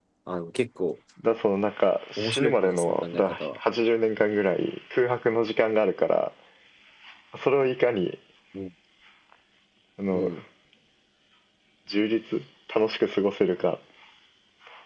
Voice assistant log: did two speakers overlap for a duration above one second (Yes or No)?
Yes